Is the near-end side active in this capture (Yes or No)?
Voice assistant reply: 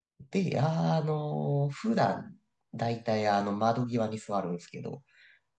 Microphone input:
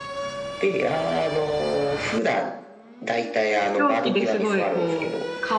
Yes